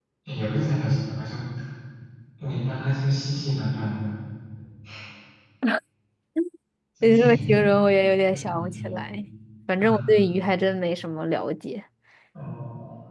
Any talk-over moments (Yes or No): Yes